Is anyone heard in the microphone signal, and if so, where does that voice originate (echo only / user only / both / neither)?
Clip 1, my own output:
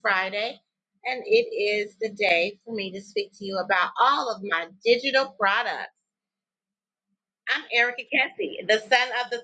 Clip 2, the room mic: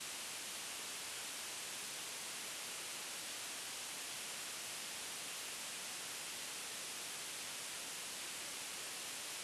neither